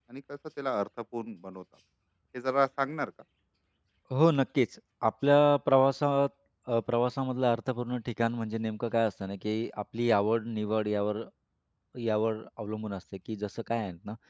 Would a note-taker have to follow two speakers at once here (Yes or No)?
No